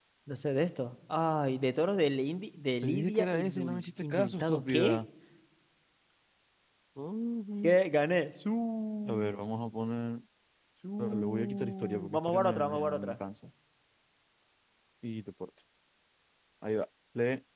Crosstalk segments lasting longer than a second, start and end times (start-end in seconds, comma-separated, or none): 2.8-5.0, 11.0-13.2